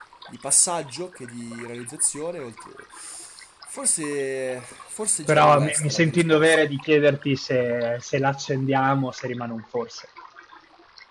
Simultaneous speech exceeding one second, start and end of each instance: 5.3-6.7

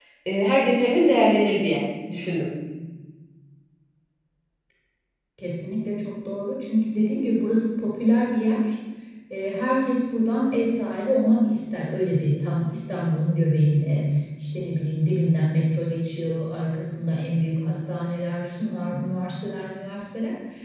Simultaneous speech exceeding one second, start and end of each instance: none

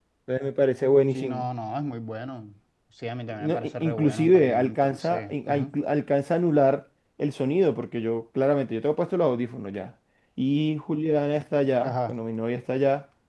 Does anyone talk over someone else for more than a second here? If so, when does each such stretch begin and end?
3.4-5.7

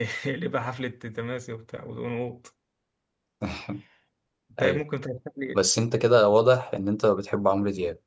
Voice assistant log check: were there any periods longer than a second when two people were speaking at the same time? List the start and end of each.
none

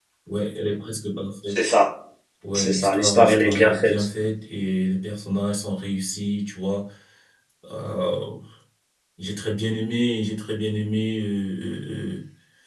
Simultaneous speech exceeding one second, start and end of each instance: 2.5-4.1

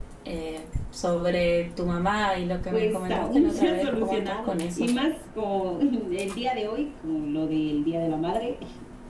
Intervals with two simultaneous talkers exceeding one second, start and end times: 2.7-4.9

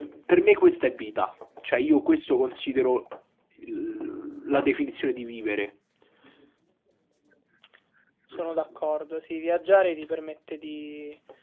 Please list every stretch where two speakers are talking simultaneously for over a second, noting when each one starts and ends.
none

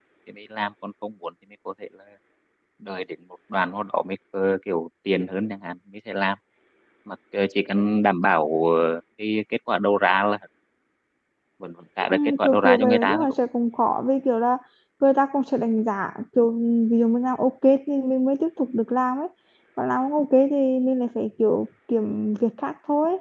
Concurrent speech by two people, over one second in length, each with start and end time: 12.0-13.3

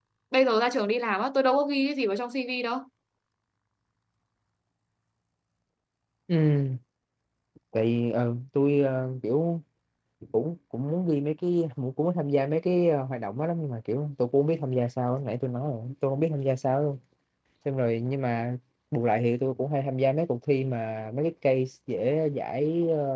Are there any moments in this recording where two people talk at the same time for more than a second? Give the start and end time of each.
none

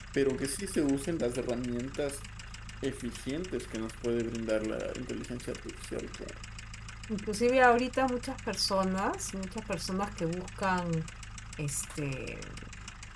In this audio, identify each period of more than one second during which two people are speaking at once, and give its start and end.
none

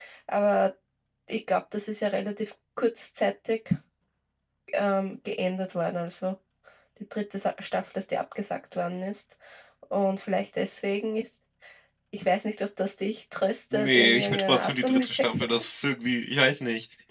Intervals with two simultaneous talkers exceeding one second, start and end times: 13.7-15.4

